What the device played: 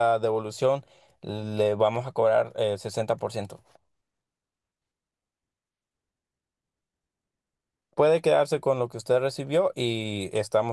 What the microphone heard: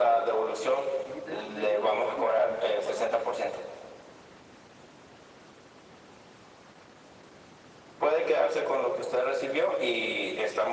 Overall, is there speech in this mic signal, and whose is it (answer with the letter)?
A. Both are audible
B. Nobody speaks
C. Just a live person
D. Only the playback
A